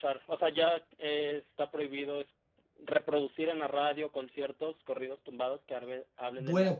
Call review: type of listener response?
taking over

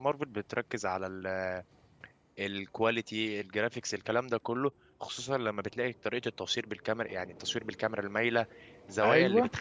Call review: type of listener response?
listening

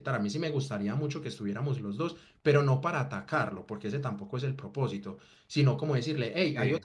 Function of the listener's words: listening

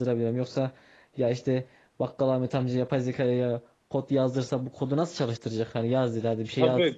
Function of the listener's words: taking over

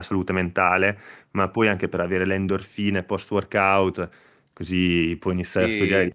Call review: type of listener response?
listening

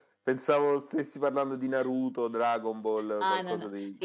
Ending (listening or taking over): taking over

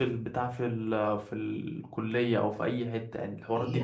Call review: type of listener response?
taking over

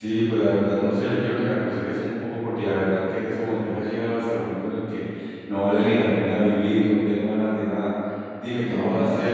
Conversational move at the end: listening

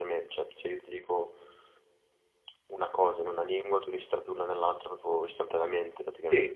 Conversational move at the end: taking over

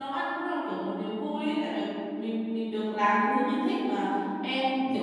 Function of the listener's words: listening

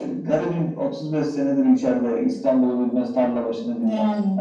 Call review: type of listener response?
listening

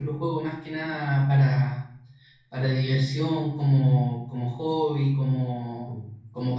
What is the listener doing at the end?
listening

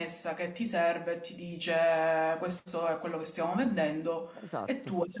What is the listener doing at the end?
taking over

